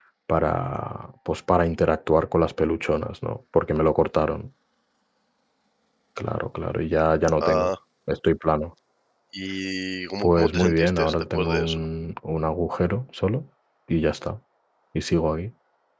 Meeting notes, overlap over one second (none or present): present